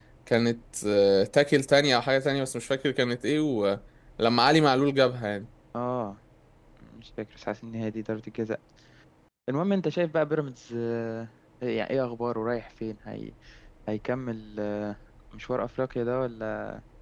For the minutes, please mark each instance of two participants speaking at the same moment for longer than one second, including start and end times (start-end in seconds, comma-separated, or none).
none